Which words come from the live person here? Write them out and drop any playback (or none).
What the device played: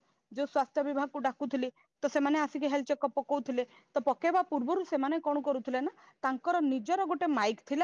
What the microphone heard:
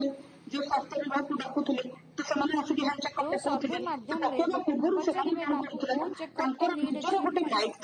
ଯୋଉ ସର୍ଭେ ମାଧ୍ୟମ ରେ ଲୋକଙ୍କୁ ପଚାରିବେ ତାଙ୍କୁ କୋଉ ଚେକଅପ ନିଡ୍ ଅଛି।